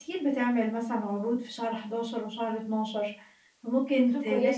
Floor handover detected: No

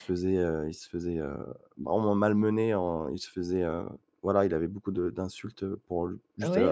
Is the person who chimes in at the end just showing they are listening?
No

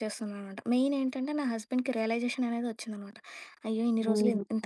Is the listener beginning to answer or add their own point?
Yes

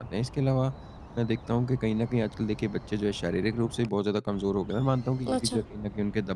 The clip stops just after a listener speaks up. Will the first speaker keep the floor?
Yes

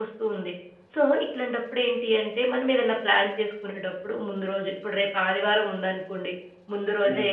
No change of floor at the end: Yes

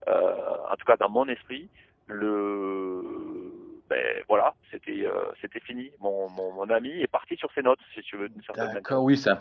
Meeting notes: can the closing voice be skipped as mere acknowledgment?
No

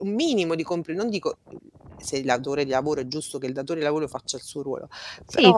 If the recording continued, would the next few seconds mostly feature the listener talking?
Yes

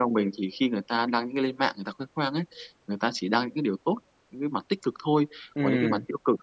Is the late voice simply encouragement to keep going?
Yes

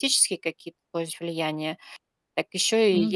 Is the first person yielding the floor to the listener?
No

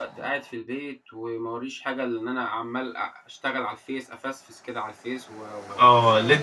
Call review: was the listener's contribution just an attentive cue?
No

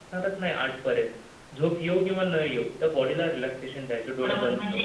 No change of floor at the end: No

